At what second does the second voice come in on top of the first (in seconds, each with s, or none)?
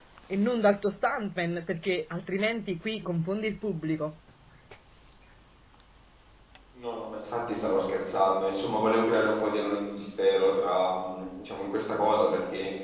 none